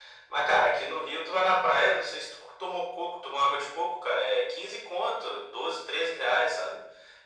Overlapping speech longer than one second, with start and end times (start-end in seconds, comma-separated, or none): none